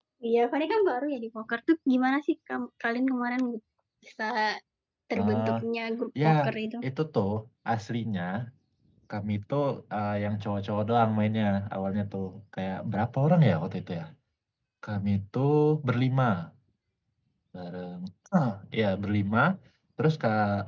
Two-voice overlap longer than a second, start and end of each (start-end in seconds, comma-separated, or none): none